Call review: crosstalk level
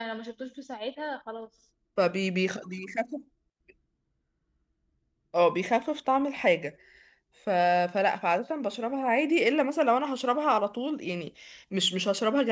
none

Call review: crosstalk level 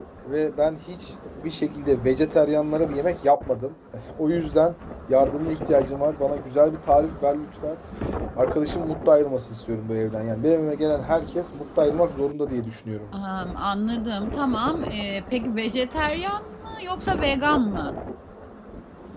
none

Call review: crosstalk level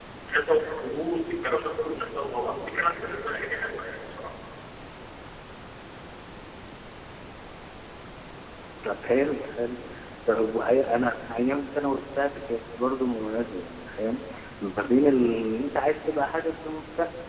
none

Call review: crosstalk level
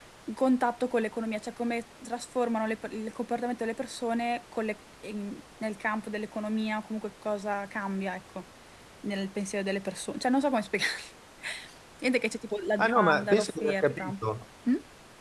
present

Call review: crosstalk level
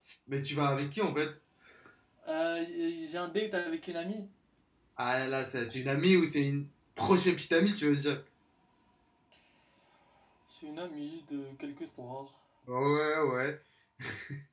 none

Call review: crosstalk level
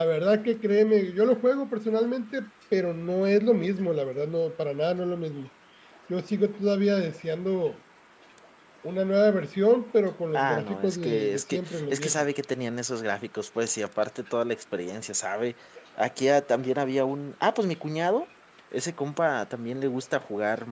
present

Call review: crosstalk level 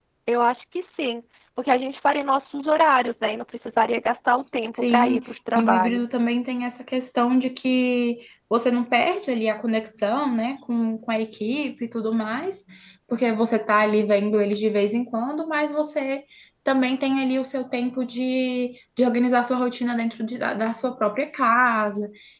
present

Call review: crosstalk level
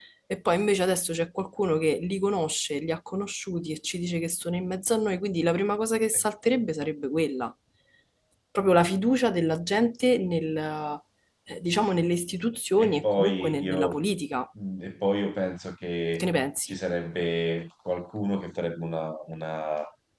present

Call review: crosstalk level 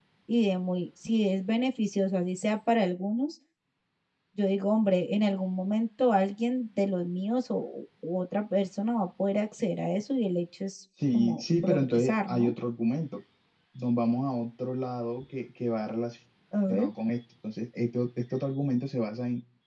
present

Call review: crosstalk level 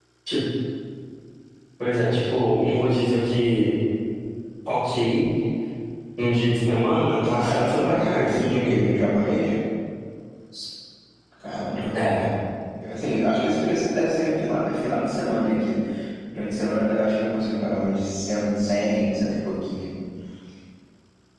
present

